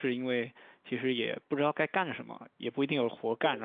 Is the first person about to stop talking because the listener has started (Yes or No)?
No